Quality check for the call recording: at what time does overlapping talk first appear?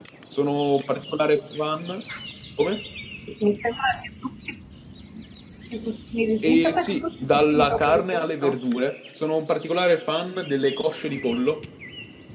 6.4 s

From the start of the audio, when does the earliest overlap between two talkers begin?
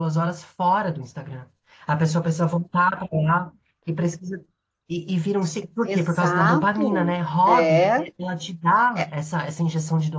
5.9 s

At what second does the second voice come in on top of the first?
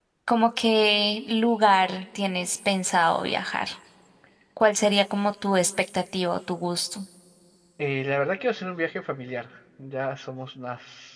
none

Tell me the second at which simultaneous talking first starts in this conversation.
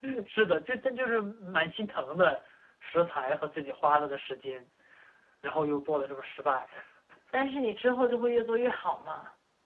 none

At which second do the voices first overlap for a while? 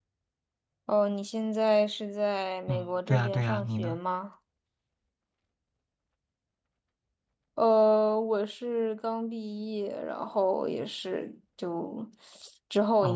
2.7 s

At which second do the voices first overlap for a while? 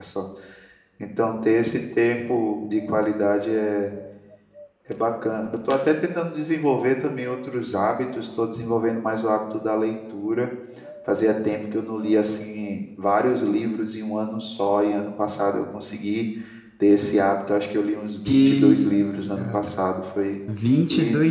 18.2 s

